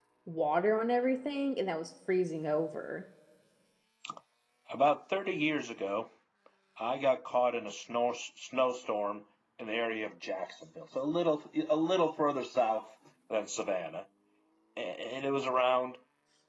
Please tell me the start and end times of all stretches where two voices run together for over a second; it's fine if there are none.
none

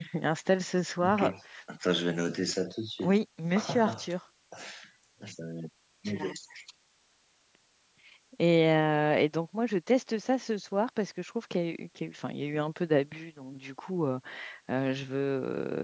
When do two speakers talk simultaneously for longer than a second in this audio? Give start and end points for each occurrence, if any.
none

